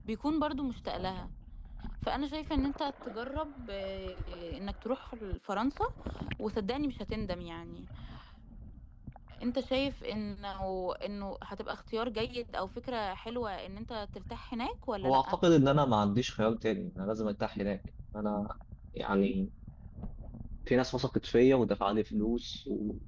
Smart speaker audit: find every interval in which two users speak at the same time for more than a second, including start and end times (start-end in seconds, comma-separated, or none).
none